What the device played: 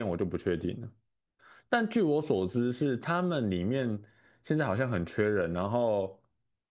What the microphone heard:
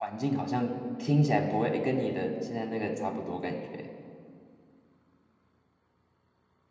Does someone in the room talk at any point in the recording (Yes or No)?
Yes